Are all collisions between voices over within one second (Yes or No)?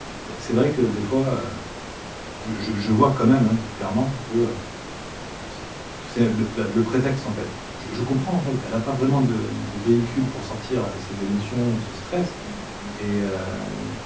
Yes